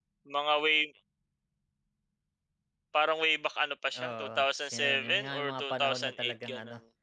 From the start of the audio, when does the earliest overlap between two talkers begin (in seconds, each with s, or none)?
4.0 s